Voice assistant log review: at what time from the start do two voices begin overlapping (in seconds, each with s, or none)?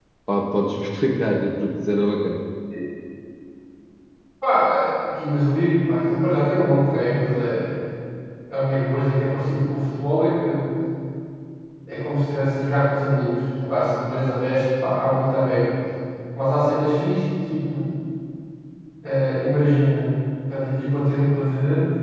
none